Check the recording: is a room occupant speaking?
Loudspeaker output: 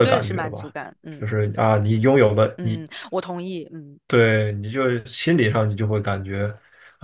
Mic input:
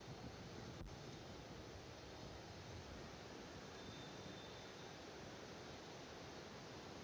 No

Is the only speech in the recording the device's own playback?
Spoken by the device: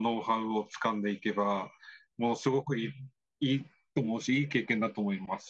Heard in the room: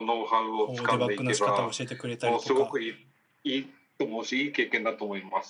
No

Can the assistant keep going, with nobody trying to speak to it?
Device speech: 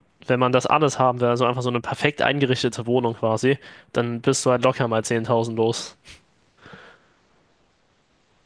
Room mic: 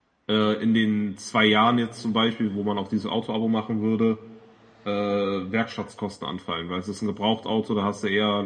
No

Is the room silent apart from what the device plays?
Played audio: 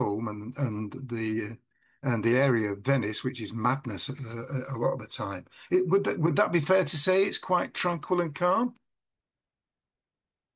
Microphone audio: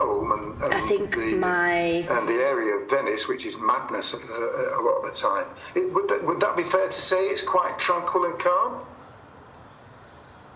No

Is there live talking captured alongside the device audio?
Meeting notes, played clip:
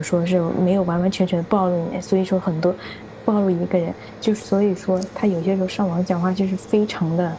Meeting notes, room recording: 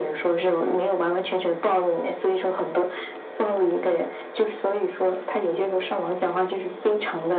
No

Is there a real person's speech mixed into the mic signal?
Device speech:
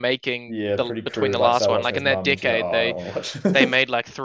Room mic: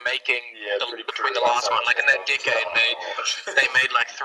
No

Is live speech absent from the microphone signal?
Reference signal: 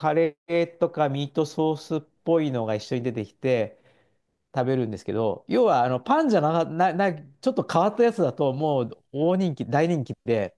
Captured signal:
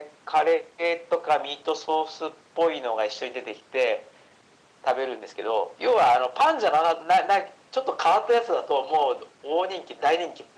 Yes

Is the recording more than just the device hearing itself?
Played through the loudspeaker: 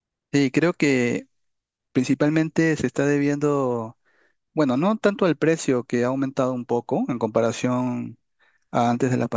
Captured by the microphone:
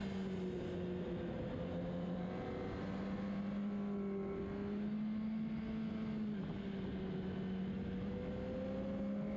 No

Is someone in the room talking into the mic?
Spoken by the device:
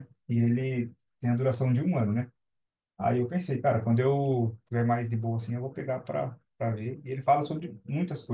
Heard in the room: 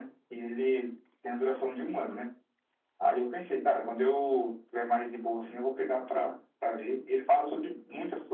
No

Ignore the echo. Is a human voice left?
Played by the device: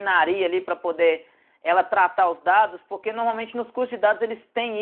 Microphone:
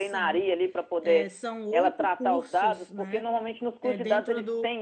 Yes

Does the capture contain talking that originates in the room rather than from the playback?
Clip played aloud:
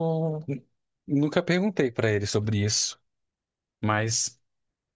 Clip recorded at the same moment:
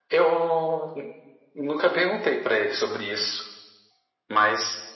No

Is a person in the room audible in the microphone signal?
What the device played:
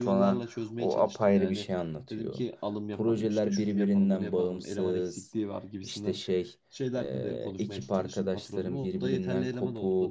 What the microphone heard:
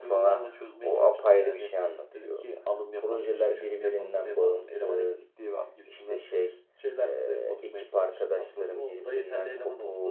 No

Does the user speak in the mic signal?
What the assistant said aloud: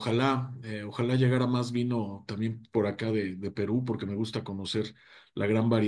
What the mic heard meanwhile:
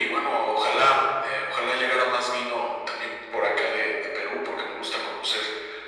No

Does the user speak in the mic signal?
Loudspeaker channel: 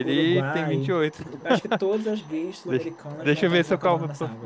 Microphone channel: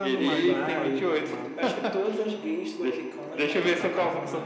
Yes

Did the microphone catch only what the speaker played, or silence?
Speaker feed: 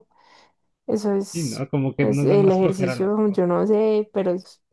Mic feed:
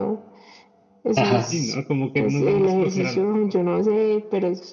No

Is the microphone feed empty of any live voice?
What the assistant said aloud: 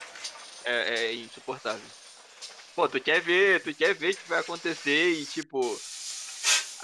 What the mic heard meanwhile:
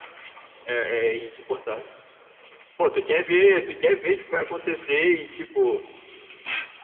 Yes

